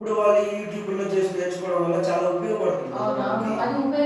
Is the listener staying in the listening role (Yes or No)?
No